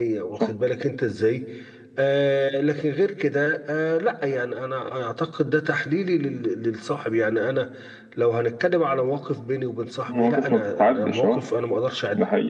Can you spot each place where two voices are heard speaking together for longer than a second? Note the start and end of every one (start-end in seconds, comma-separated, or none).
10.1-11.4